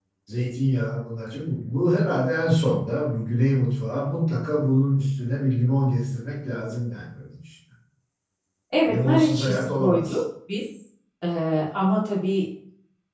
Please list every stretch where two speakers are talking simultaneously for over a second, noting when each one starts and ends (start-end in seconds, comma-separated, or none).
8.9-10.2